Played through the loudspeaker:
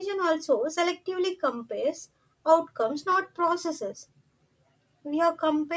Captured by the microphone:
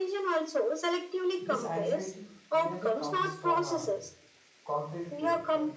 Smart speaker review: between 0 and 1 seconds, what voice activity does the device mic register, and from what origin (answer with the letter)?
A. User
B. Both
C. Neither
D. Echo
D